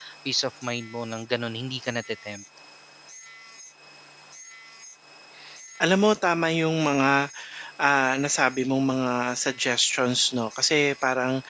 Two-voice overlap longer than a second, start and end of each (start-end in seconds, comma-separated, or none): none